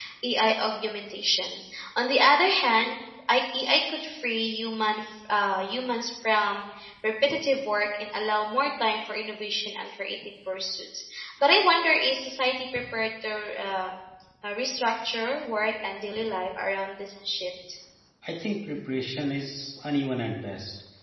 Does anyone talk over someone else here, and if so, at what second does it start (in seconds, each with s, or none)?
none